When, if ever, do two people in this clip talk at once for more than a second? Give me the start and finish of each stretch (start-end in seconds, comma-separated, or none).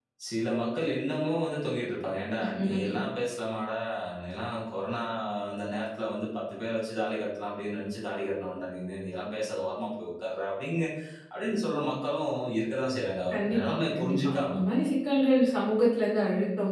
13.3-14.5